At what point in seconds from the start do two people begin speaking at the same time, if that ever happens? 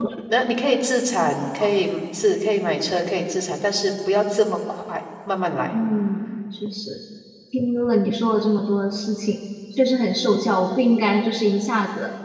none

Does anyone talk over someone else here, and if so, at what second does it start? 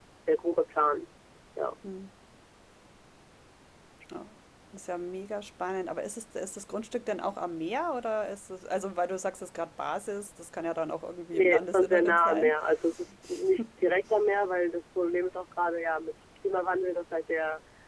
11 s

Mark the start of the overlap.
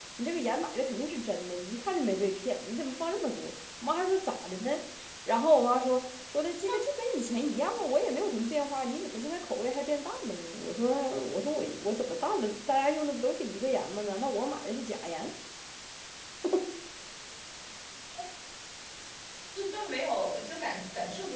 none

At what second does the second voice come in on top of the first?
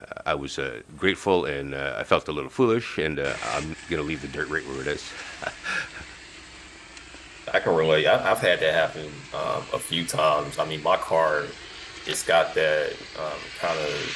none

